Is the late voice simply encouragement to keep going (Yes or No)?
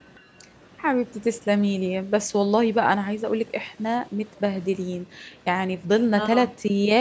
Yes